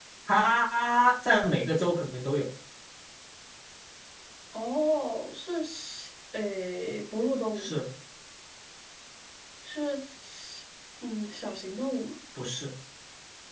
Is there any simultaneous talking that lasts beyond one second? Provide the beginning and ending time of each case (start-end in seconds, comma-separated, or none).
none